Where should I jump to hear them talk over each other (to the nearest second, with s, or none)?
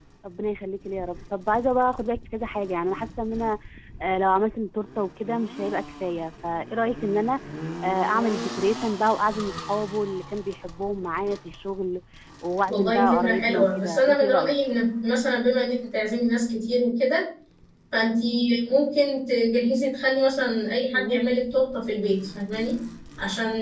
13 s